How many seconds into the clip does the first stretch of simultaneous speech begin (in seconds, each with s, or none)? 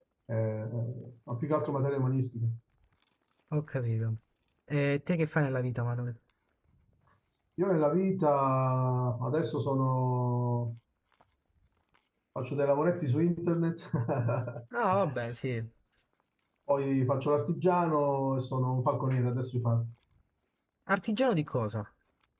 none